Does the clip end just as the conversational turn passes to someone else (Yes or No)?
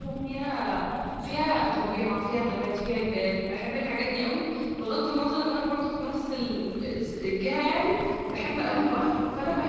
No